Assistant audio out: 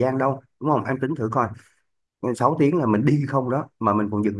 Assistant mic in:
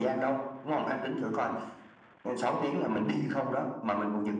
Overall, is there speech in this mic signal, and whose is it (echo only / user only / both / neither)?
echo only